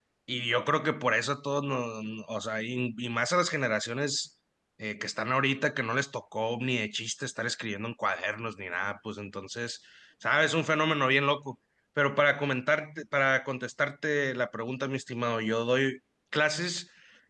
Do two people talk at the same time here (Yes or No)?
No